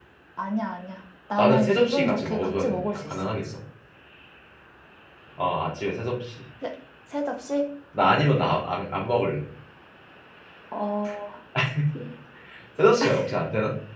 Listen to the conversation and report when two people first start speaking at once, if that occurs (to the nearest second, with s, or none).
1 s